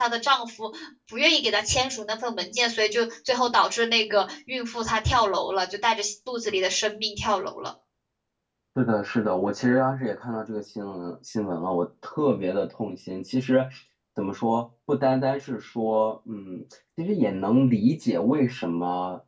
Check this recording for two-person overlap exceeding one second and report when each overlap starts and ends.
none

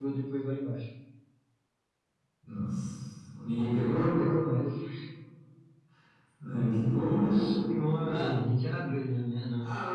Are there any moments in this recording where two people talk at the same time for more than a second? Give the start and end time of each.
none

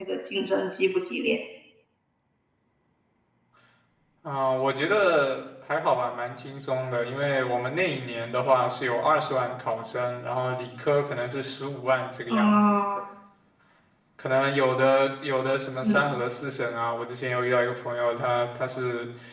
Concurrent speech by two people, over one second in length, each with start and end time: none

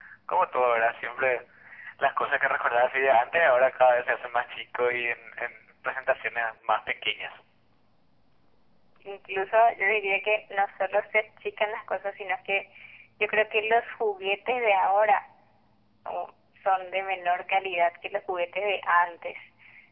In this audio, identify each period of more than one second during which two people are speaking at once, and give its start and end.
none

